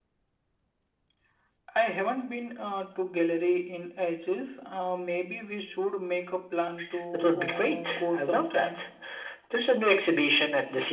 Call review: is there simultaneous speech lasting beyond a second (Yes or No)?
Yes